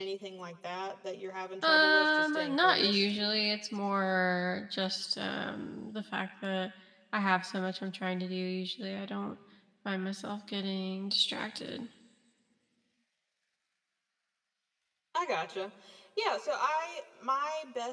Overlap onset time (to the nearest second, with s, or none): 2 s